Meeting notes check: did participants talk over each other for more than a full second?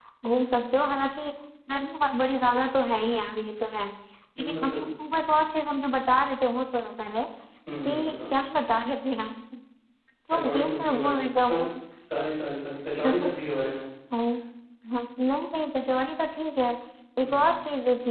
Yes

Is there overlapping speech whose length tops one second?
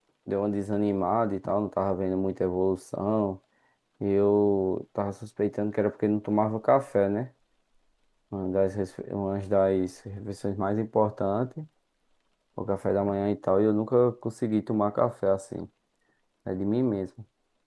No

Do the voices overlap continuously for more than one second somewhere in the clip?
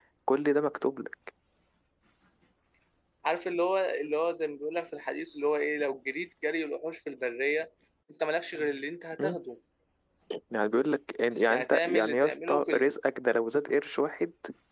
Yes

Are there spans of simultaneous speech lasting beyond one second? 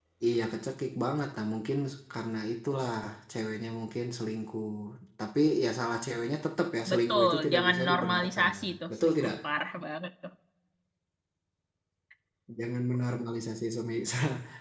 Yes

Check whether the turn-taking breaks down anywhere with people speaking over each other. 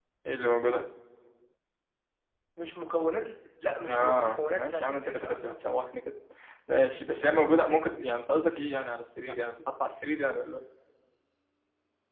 Yes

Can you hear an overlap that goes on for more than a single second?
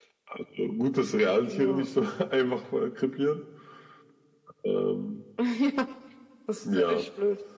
No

